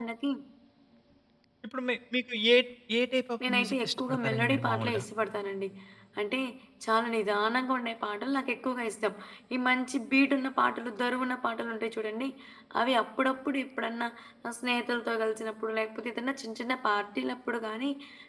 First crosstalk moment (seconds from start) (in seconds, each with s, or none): 3.5 s